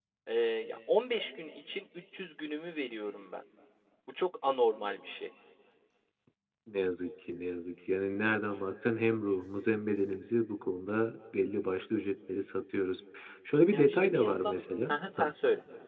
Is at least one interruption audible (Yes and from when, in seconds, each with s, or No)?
Yes, from 13.7 s